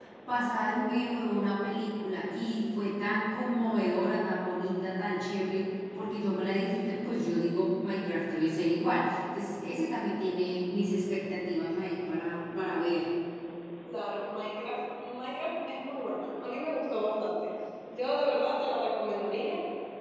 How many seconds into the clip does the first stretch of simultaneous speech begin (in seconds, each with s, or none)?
none